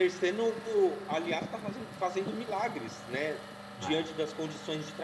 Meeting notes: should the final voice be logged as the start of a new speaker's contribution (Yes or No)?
No